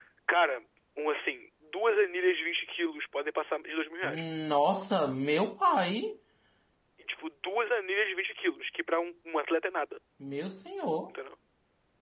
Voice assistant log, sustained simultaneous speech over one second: none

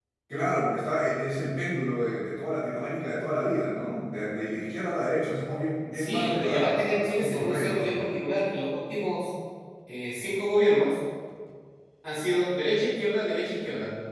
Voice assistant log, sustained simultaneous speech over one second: present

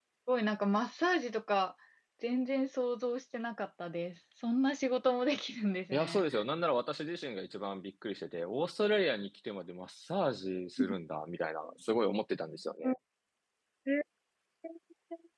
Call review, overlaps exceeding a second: none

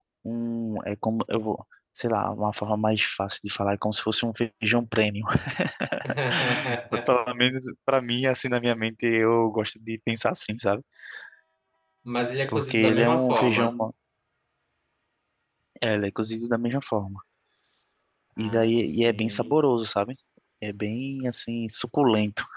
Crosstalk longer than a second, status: present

